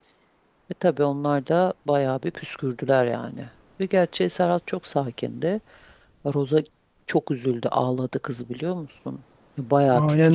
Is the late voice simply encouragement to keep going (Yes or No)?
No